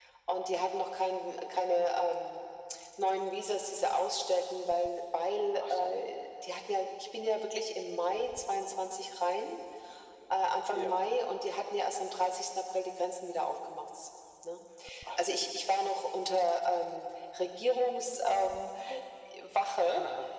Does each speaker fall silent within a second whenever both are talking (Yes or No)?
Yes